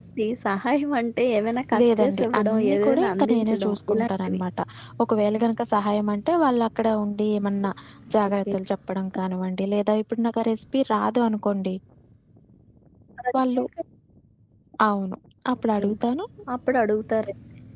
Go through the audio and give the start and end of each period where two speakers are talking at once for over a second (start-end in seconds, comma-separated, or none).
1.8-4.4